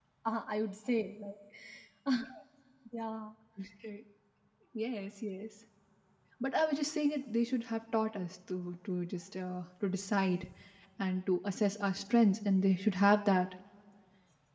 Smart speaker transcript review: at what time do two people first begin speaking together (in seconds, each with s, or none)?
none